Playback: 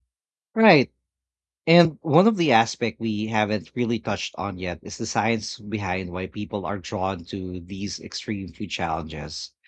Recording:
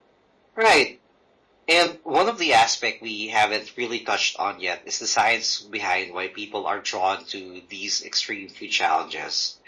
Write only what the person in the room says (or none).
none